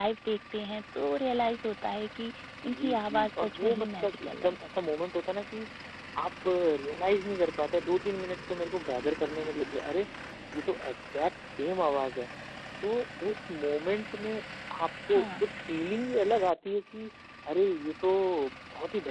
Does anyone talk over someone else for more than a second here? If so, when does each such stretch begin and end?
2.7-4.6

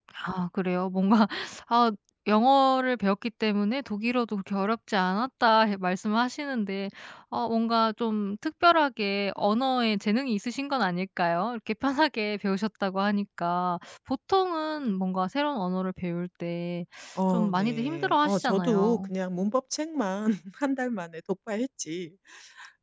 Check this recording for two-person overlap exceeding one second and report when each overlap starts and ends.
17.3-19.1

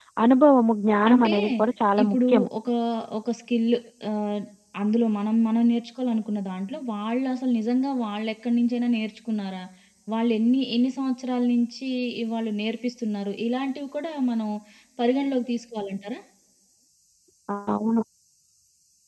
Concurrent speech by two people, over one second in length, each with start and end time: none

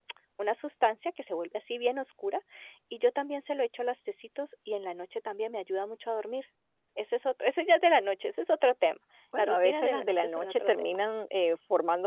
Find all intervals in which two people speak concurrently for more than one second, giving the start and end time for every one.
9.4-11.0

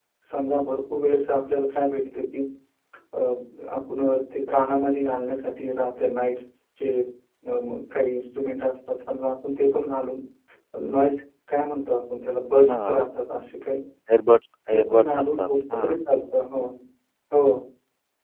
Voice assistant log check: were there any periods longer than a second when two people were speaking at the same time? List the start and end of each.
14.7-16.0

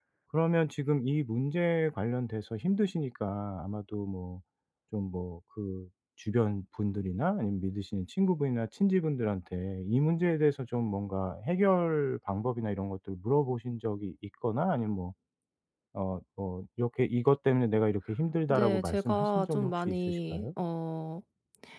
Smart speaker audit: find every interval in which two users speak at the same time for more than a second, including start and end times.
18.5-20.4

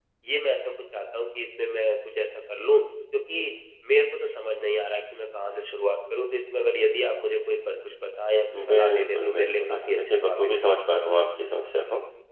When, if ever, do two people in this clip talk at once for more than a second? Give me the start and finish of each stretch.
8.7-10.7

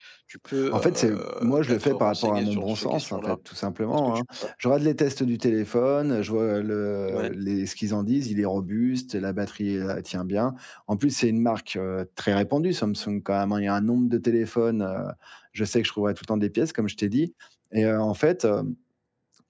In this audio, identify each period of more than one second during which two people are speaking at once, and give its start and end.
0.7-3.4

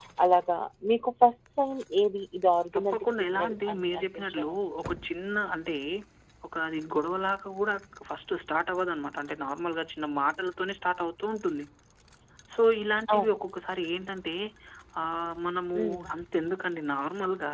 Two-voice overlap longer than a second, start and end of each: 2.8-4.7

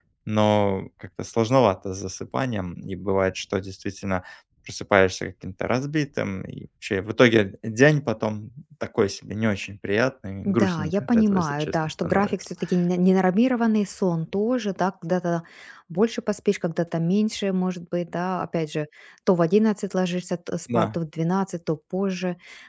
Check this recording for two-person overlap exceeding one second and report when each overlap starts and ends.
10.4-12.3

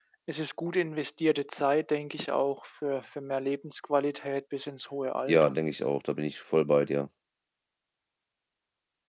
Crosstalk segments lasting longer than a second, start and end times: none

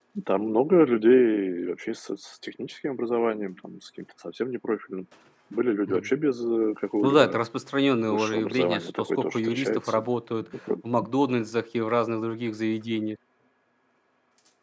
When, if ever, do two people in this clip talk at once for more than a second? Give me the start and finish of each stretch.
8.1-10.0

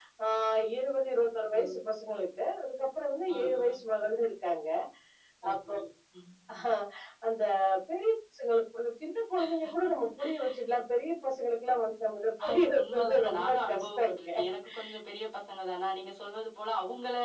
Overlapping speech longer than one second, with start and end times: 12.5-14.3

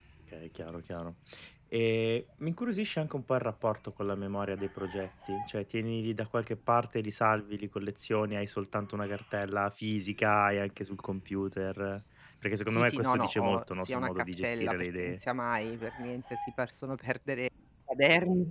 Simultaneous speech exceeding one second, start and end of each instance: 12.7-15.2

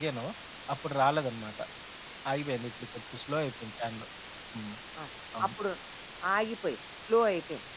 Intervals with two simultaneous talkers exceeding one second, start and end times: none

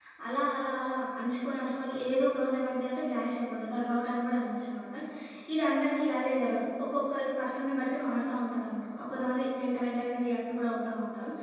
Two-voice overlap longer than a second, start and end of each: none

